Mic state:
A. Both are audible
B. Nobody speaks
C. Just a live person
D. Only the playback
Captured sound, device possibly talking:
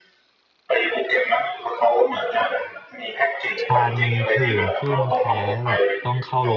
A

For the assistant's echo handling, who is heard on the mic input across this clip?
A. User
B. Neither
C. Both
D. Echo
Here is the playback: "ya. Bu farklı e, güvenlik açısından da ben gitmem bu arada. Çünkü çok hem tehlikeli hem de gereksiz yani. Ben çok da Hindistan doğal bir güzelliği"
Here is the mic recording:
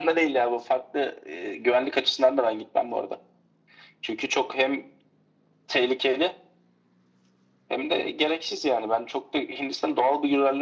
D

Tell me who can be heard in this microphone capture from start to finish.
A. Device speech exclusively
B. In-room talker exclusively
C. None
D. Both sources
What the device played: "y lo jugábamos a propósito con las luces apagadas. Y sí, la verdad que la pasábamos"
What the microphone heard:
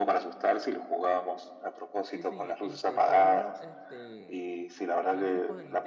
D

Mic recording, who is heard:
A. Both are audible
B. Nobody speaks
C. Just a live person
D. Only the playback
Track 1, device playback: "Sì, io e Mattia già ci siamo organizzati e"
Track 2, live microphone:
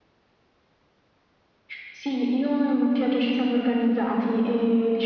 D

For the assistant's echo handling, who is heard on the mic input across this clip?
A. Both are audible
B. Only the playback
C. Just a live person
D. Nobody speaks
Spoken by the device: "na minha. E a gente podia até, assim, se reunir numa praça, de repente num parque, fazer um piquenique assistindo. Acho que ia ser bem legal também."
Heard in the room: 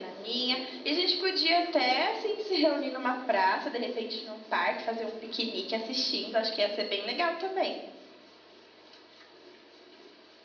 B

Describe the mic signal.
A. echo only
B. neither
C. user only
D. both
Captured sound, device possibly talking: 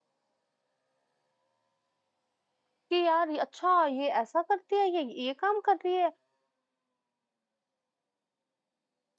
C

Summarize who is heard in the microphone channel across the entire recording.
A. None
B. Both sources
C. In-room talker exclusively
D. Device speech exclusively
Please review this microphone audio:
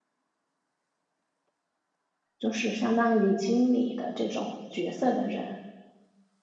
C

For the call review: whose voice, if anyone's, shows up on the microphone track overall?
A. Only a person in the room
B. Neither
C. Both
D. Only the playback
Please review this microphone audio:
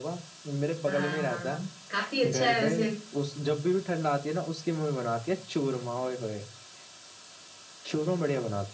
C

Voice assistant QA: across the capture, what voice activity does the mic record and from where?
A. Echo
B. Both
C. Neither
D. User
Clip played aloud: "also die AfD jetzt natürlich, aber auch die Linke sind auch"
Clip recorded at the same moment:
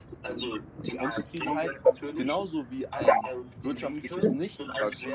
B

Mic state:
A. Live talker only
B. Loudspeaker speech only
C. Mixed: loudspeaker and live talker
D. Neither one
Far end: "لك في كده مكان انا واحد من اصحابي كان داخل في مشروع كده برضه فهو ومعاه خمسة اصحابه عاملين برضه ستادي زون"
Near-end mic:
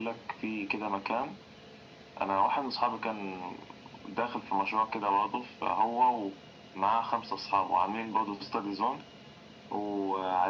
B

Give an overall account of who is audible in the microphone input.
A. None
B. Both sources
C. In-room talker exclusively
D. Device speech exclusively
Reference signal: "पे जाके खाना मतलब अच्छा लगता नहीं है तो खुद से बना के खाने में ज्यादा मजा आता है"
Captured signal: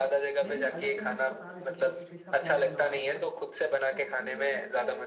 B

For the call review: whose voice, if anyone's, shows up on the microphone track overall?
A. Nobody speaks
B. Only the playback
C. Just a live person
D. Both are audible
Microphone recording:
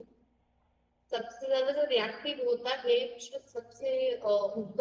C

